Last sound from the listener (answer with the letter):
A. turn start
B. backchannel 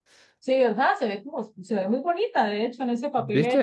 B